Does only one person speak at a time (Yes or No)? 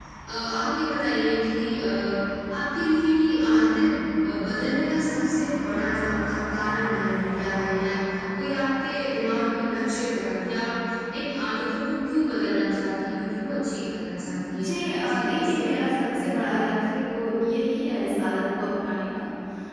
No